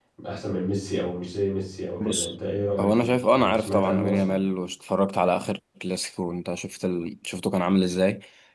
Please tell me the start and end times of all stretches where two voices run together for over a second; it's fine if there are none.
2.8-4.3

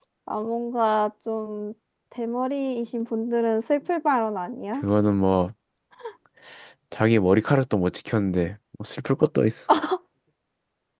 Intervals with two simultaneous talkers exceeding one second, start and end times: none

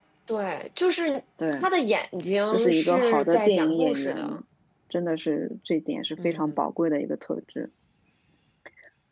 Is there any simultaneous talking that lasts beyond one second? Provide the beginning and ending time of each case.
2.5-4.2

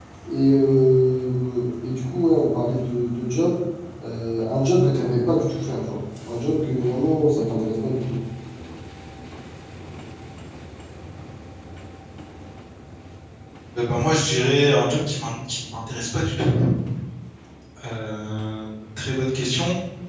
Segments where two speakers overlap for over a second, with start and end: none

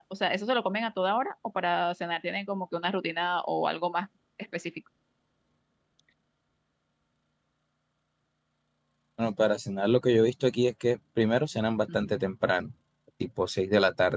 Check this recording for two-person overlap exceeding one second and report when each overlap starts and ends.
none

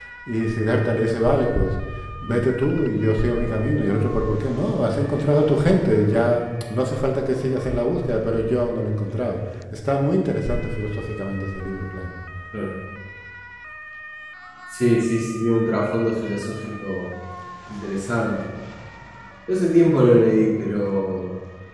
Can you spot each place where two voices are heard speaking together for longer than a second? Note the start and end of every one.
none

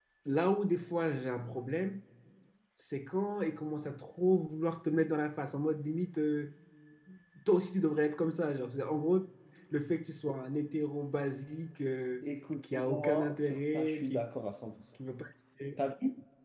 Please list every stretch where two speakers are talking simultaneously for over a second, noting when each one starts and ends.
12.8-14.3

